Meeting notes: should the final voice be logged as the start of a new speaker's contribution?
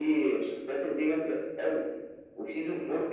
No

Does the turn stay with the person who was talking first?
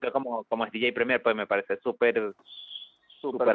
No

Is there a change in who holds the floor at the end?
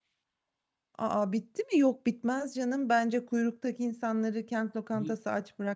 No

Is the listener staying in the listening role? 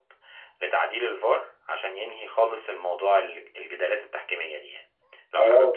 No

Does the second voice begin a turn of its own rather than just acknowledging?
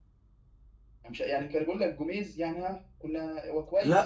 Yes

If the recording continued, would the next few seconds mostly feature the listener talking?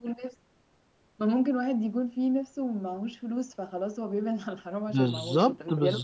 Yes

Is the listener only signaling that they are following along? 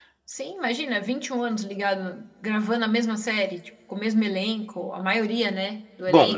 No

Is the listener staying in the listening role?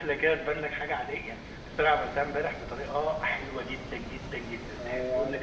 No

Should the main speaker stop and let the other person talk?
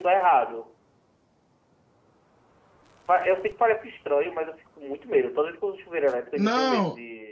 Yes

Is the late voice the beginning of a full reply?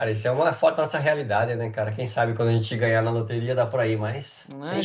Yes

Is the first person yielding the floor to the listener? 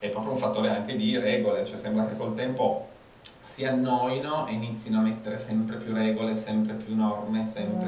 No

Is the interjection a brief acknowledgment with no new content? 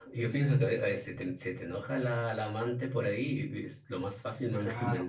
No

